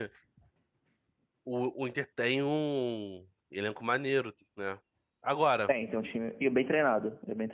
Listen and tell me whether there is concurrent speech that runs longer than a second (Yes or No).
No